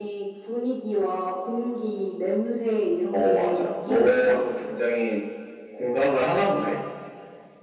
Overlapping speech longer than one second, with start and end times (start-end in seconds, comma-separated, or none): 3.1-4.4